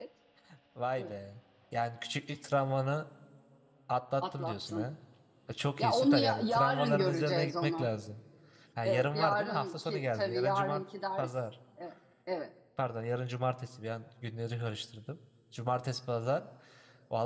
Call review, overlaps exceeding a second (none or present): present